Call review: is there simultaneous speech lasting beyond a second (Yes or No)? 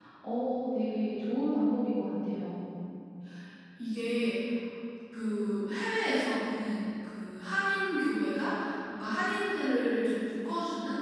No